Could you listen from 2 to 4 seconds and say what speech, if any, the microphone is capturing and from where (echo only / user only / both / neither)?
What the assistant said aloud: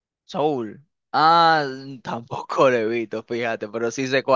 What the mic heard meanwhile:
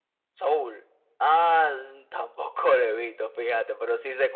echo only